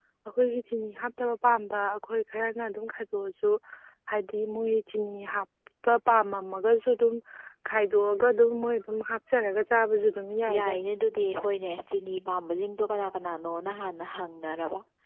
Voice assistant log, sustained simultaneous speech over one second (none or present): none